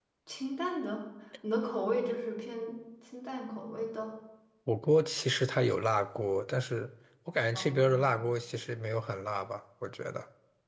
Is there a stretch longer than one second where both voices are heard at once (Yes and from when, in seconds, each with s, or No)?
No